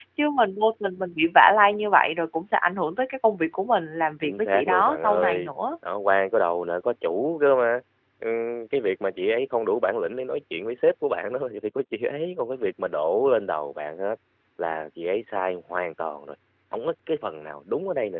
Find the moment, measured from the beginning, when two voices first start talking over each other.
4.2 s

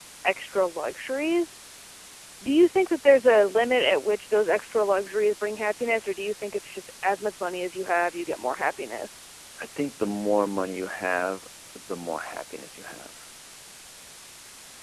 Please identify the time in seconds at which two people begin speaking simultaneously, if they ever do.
none

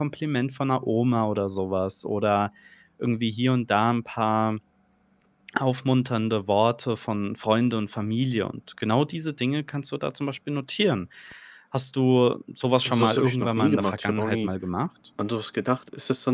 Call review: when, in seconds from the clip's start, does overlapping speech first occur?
12.8 s

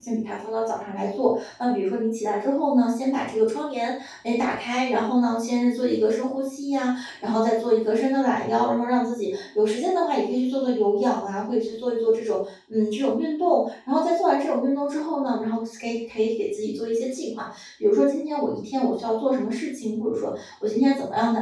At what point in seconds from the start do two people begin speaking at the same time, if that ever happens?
none

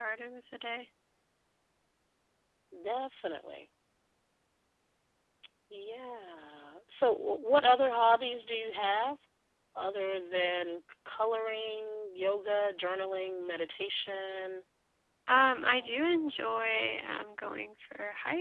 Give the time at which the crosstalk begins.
15.4 s

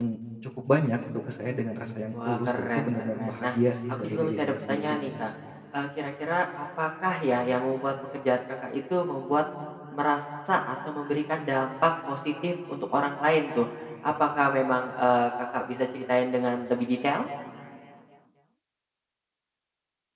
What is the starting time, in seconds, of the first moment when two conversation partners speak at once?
2.1 s

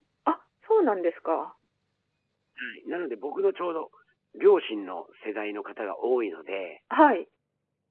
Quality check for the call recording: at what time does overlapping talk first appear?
none

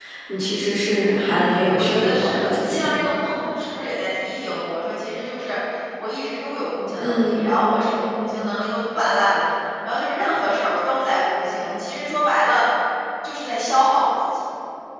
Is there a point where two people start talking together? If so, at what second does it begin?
1.2 s

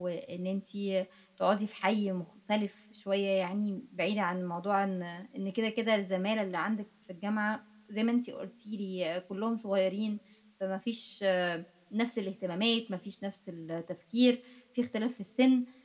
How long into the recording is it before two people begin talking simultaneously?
none

